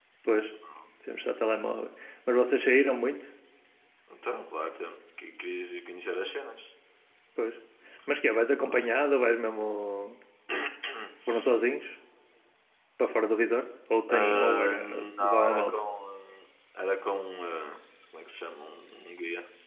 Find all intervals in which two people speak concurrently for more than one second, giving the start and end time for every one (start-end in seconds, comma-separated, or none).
14.1-15.8